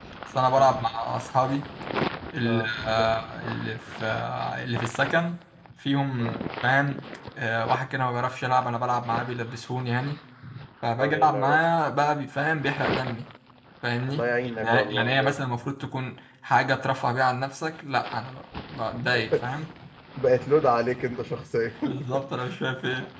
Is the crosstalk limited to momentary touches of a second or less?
No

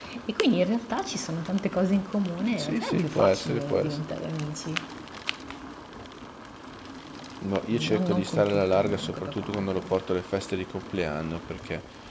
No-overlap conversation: No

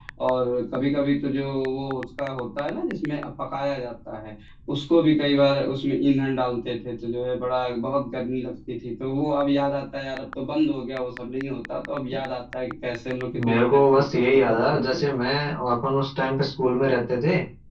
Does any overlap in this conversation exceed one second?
Yes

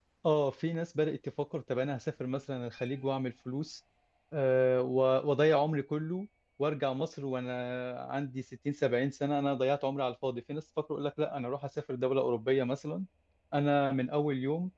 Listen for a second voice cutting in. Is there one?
No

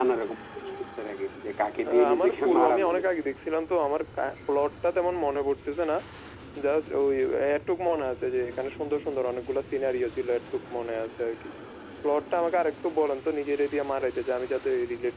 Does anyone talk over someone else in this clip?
Yes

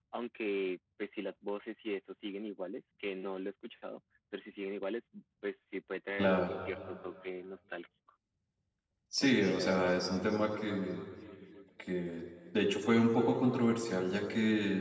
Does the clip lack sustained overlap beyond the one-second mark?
No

